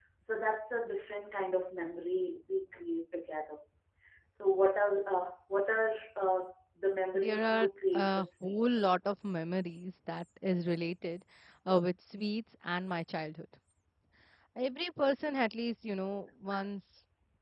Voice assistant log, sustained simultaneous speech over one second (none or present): present